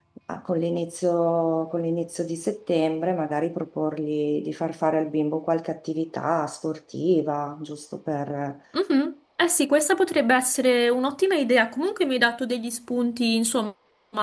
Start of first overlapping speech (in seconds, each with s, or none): none